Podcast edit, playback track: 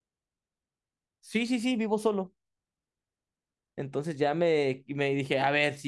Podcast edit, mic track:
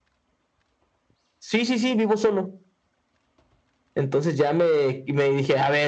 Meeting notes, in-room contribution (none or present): none